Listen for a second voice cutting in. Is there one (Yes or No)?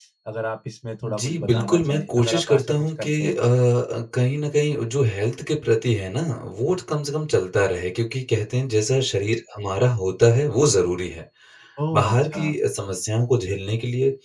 Yes